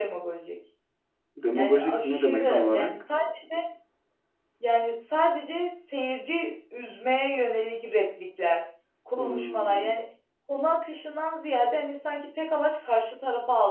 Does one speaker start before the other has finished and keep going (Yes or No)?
Yes